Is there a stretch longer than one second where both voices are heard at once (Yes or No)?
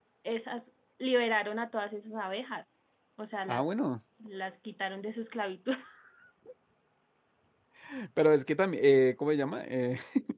No